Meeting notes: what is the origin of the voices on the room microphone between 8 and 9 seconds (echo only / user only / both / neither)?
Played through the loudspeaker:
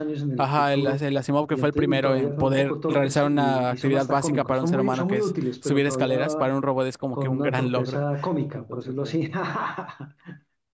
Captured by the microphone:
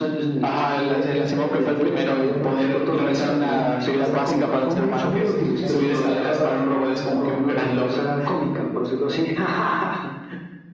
echo only